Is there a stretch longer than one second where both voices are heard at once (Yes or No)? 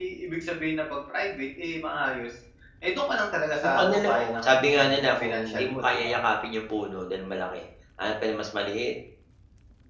Yes